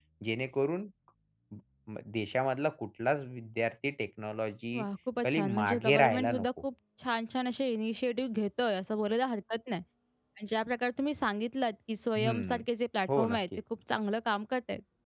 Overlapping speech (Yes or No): Yes